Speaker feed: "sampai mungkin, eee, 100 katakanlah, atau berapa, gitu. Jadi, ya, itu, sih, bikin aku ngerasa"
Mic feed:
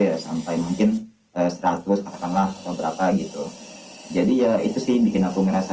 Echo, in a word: present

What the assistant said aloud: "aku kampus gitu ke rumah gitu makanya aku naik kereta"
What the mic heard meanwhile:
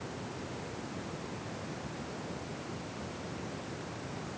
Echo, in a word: none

